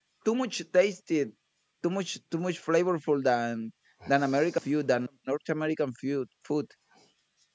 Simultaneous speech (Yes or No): No